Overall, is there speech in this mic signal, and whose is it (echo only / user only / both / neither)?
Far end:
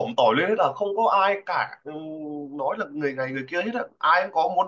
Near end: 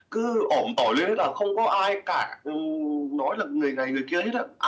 echo only